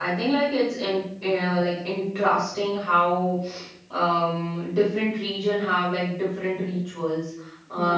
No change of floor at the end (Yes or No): Yes